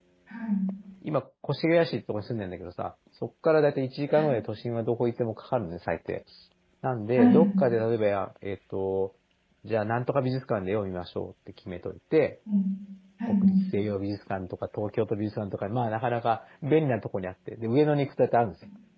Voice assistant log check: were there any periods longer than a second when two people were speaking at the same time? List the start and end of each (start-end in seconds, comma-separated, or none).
none